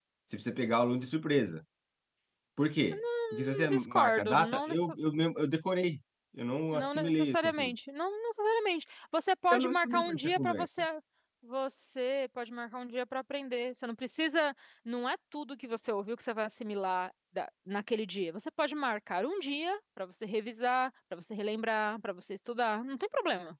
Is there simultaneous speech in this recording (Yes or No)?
Yes